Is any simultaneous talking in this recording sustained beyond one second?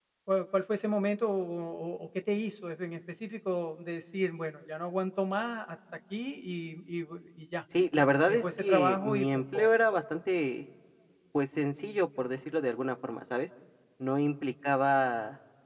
Yes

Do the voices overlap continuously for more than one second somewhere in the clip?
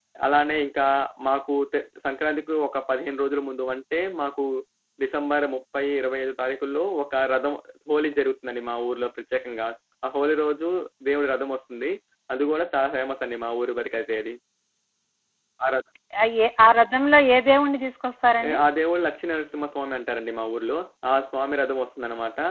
No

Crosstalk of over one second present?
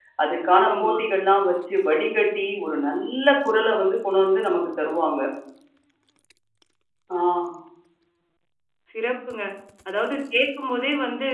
No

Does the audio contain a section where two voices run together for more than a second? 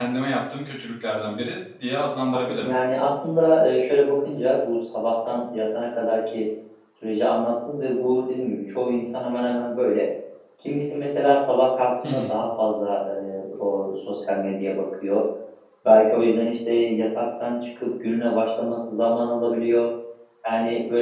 No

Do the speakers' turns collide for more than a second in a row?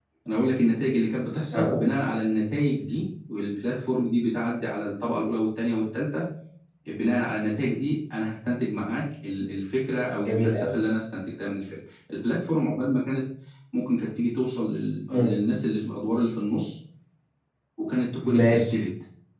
No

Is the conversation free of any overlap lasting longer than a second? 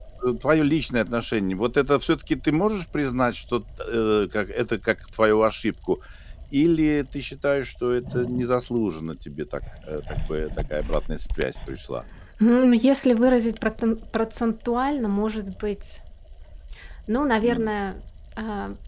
Yes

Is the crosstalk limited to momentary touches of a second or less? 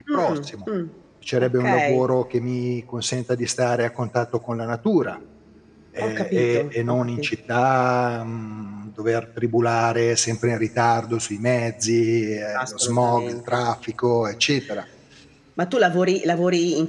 No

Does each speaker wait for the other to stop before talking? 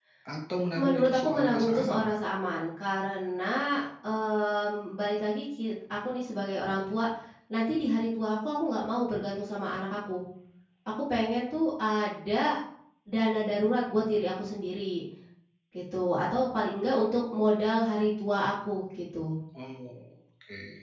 No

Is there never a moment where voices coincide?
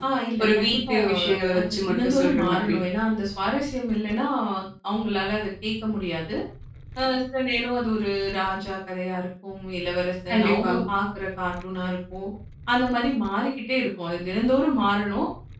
No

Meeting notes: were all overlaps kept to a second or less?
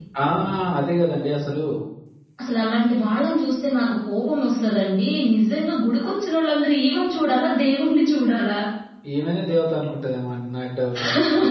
Yes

